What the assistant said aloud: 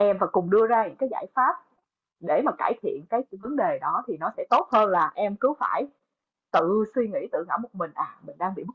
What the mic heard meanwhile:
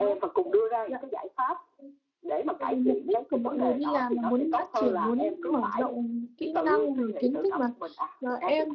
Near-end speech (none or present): present